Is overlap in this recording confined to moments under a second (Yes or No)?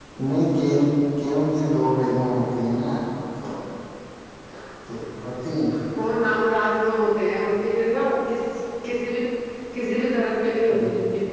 Yes